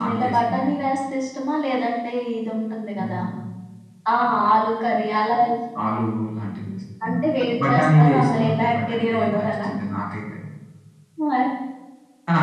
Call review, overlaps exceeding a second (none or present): present